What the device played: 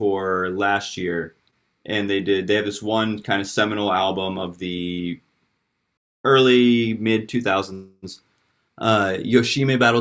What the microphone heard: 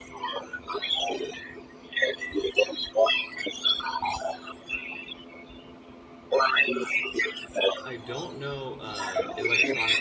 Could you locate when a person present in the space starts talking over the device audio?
8 s

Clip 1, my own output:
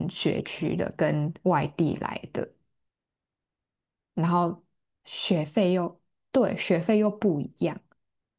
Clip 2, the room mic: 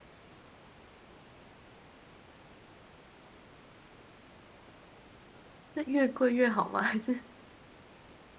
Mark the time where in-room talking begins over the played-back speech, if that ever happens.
6 s

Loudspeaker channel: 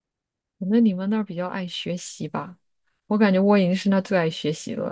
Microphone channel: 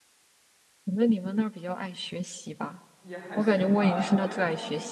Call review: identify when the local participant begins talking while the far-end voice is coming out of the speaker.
3 s

